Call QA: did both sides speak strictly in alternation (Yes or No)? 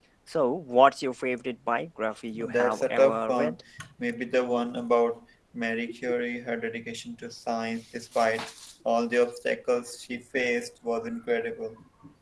No